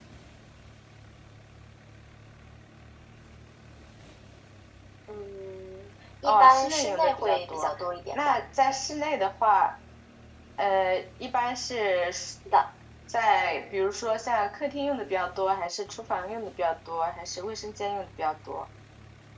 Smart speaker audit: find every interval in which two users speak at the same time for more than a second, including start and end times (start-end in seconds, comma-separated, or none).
6.2-7.7